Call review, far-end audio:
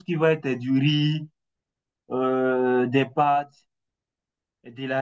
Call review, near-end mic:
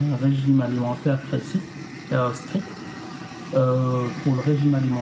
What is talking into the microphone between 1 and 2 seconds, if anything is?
user only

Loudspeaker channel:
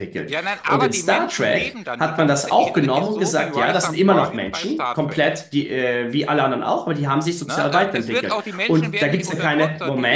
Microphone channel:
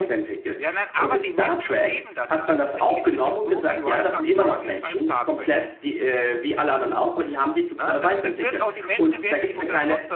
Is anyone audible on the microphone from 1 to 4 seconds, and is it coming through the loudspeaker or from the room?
echo only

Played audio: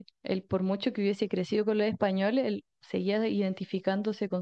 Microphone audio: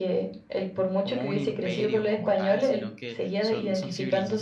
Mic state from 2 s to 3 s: both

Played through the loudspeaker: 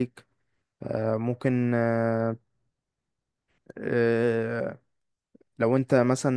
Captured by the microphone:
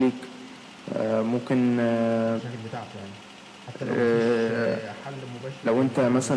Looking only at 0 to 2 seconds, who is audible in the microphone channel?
echo only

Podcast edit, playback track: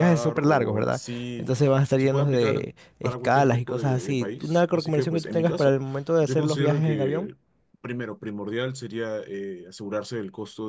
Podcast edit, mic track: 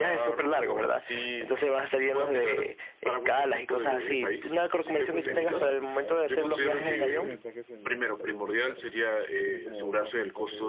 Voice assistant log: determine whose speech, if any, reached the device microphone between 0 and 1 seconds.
echo only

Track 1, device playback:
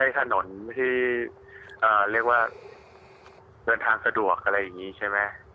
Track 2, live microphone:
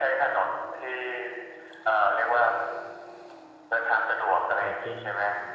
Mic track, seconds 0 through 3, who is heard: echo only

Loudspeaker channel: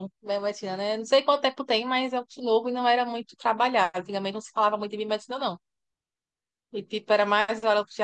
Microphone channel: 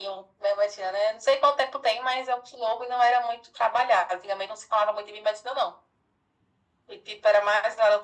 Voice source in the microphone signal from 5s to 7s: echo only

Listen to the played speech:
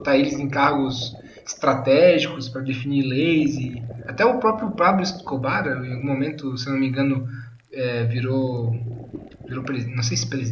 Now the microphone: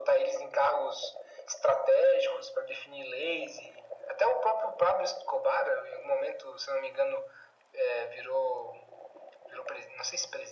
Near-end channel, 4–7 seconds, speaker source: echo only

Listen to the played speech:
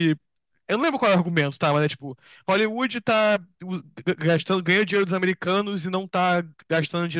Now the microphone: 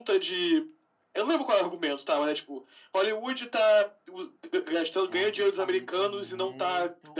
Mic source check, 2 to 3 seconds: echo only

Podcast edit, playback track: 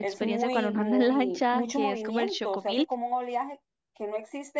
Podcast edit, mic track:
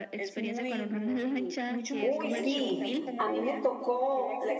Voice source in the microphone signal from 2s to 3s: both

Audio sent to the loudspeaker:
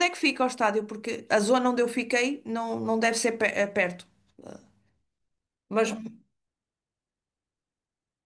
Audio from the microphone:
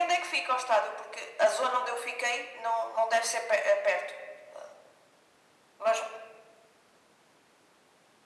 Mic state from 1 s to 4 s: echo only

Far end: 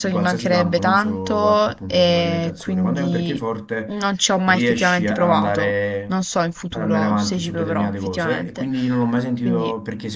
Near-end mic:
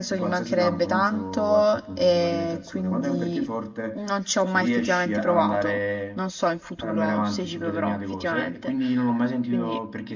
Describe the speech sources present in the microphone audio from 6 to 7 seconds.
echo only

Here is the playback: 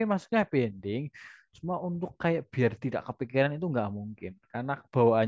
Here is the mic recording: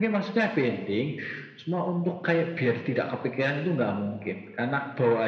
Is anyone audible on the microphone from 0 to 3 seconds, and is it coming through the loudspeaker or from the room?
echo only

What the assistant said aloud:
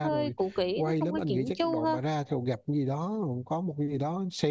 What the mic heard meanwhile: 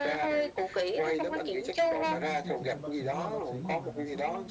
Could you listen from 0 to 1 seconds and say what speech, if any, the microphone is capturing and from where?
echo only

